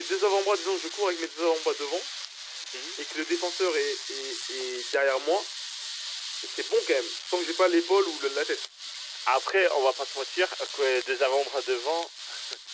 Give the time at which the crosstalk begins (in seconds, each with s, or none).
none